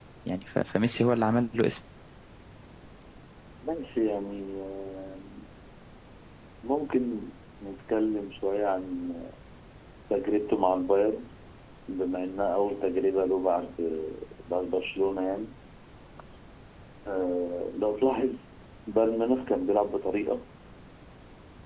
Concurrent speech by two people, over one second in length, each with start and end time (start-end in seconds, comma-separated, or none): none